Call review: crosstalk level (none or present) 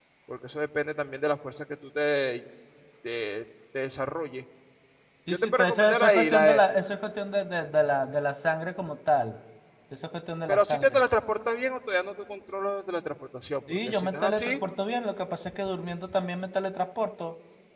present